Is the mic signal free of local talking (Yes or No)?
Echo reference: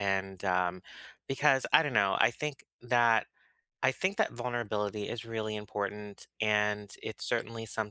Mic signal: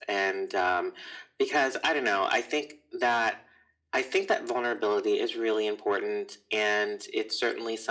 Yes